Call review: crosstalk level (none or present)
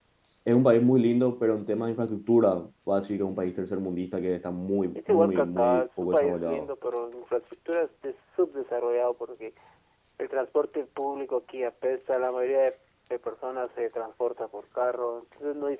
present